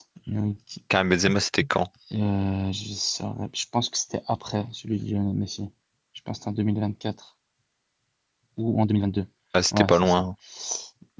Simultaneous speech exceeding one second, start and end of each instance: none

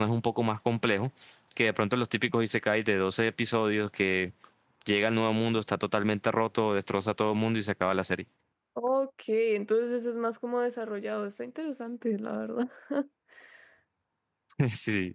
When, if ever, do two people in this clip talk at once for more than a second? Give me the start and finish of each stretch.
none

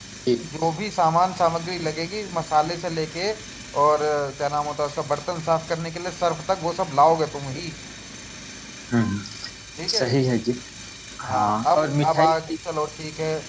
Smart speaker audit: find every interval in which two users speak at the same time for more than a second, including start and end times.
11.2-12.5

